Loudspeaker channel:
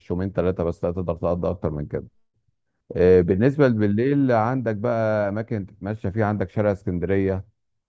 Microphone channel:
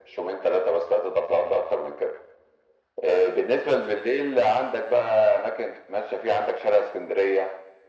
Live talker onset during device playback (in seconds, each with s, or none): none